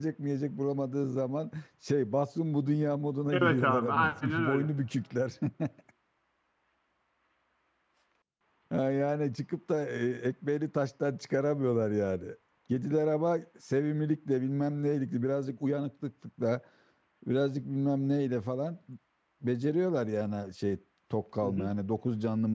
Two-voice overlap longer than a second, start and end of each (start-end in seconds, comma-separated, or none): 3.3-4.7